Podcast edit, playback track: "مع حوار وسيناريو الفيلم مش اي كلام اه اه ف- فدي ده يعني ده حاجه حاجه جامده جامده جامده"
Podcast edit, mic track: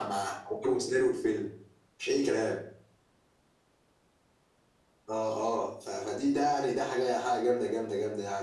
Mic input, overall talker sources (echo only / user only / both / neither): echo only